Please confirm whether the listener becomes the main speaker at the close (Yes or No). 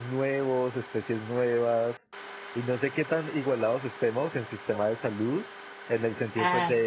No